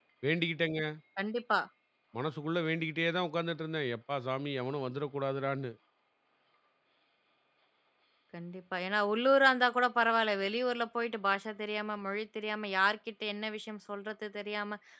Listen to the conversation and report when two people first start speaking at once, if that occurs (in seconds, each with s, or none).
none